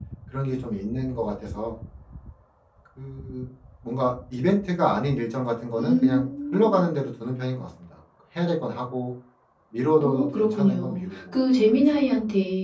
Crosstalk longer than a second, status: present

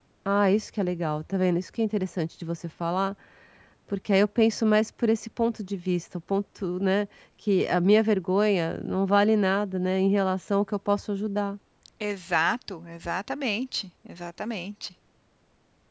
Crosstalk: none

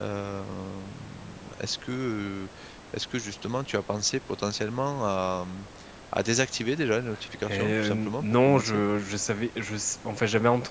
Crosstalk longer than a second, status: present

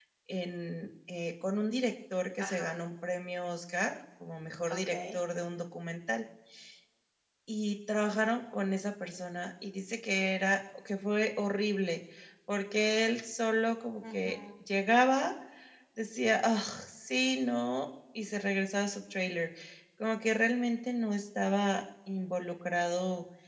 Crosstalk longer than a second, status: none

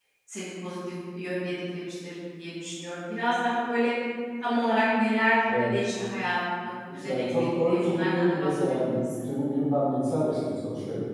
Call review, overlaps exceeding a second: present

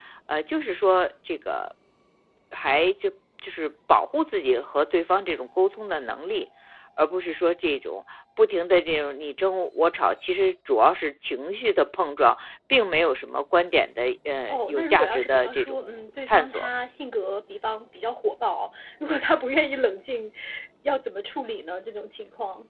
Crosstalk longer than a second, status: present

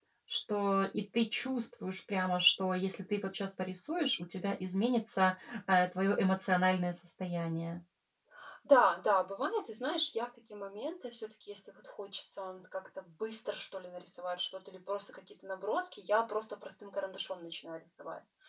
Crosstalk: none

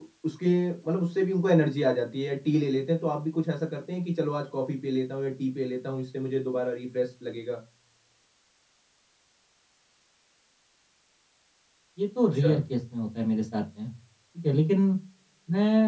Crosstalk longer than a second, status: none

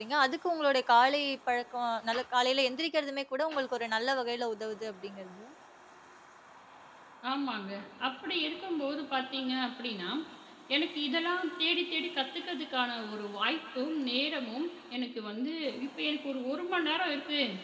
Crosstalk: none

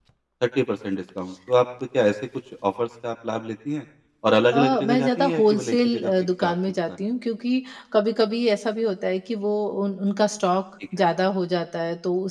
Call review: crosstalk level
present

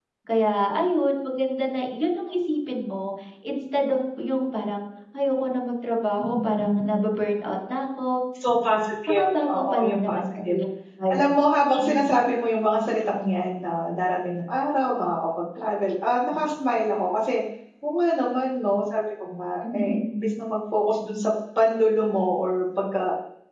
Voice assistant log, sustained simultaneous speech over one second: present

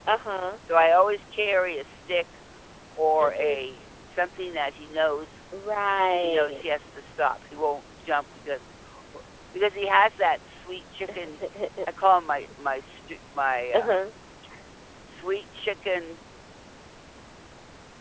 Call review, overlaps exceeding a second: none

